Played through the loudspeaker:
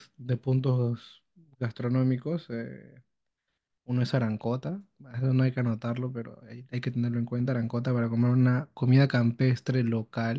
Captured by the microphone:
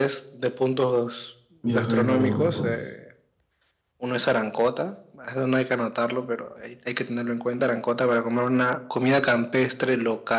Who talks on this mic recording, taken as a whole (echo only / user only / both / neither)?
both